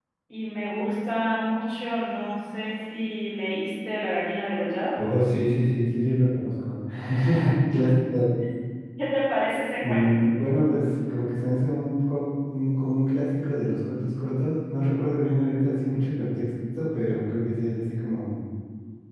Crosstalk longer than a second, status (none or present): none